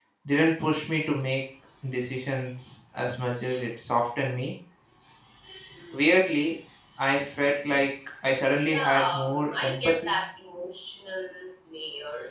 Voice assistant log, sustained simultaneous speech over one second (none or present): present